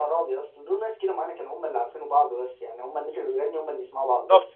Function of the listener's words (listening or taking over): taking over